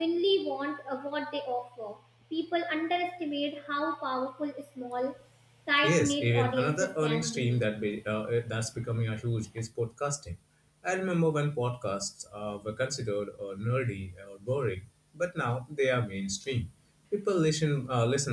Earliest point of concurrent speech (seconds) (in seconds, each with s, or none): 5.8 s